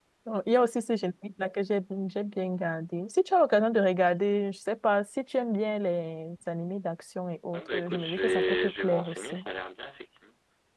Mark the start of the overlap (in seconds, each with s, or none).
7.5 s